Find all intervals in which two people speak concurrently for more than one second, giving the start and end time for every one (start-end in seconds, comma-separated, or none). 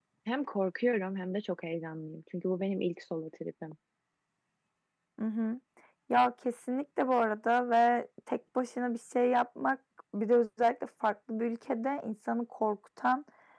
none